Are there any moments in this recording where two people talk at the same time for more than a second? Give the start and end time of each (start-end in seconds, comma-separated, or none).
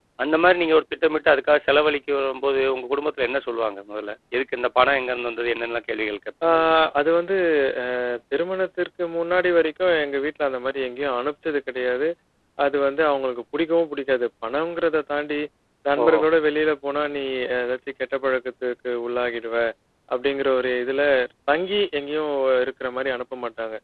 none